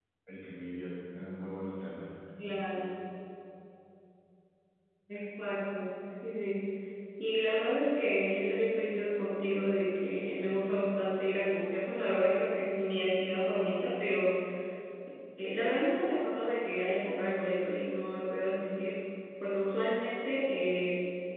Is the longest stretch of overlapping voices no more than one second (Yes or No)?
Yes